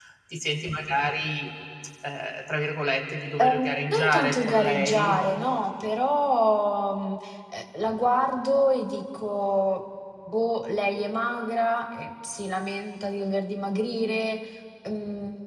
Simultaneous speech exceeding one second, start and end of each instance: 3.4-5.2

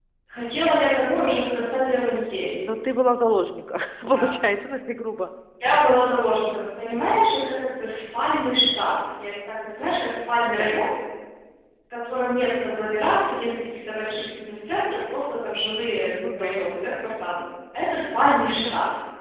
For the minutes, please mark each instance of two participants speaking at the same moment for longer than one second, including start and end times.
none

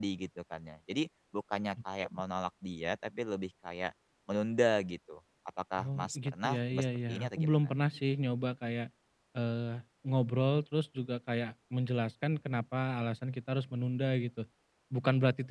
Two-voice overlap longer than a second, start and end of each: 5.8-7.7

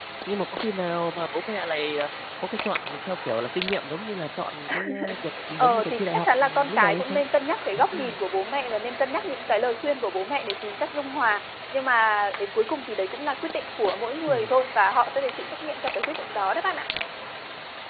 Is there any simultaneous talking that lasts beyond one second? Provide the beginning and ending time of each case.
5.6-7.2

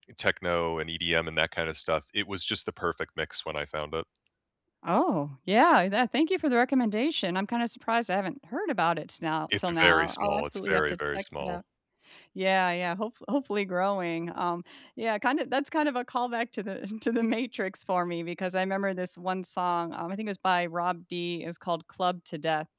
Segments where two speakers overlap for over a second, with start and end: 9.5-11.6

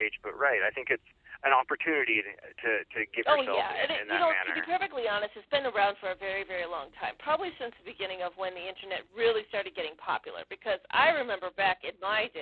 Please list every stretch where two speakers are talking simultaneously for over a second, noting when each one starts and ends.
3.3-4.7

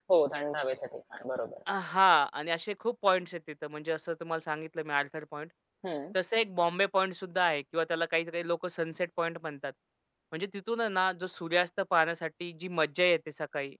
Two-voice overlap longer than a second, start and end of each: none

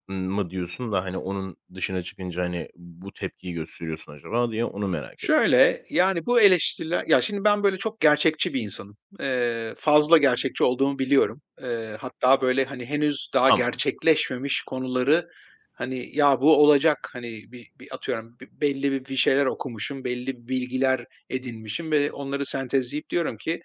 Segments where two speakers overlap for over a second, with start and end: none

